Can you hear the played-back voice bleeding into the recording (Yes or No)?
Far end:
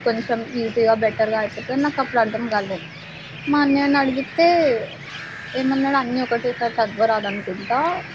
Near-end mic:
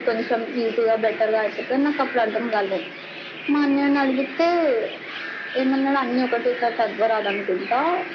Yes